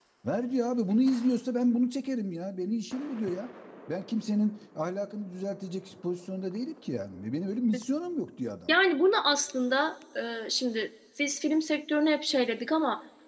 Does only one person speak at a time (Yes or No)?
Yes